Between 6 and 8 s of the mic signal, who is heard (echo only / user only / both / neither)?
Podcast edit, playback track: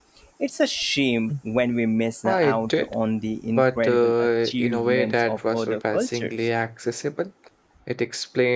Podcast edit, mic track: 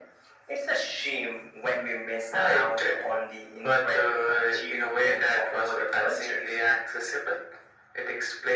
echo only